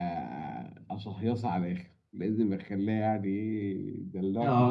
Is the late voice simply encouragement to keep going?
No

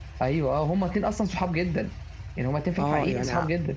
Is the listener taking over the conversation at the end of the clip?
Yes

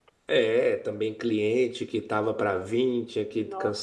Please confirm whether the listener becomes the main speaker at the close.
No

